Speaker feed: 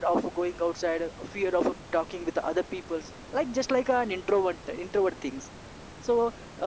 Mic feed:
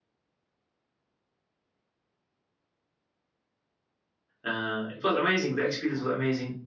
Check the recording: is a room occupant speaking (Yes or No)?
Yes